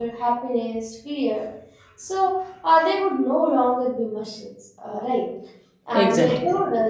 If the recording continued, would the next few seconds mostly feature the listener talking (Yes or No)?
No